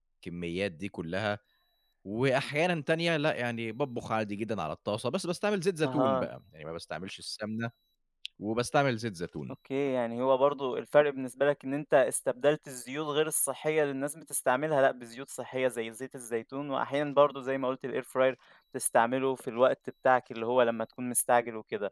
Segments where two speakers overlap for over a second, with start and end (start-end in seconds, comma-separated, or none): none